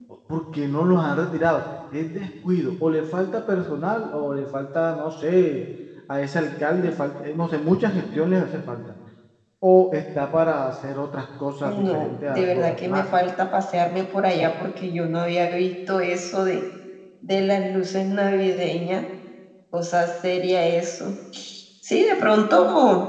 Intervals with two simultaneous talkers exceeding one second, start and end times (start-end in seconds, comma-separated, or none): 11.6-13.0